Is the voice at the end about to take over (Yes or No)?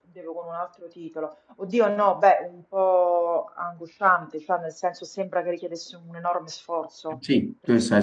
Yes